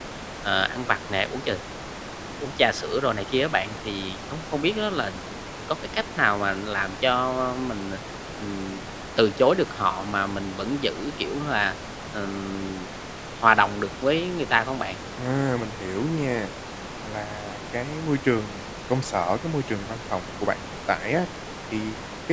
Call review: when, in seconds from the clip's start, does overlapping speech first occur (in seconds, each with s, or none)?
none